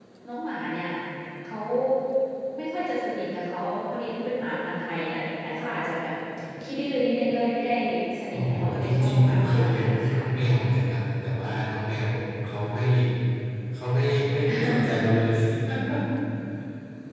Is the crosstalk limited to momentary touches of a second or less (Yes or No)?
No